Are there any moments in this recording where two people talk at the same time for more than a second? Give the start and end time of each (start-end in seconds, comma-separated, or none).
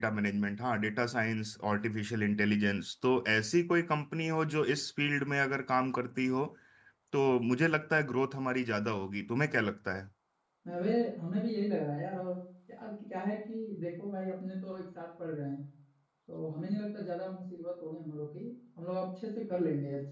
none